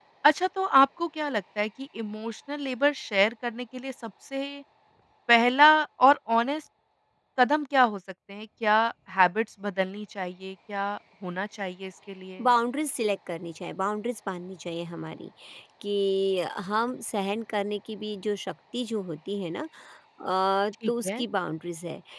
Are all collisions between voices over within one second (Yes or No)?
Yes